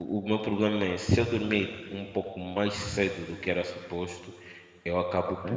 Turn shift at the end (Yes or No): No